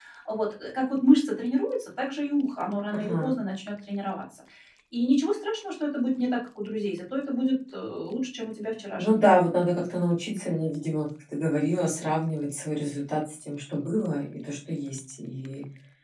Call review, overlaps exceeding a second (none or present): none